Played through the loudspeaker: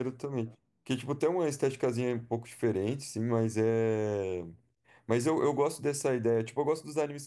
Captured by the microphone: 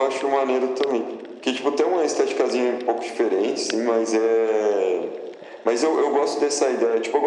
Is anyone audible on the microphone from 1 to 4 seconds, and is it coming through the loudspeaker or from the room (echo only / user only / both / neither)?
echo only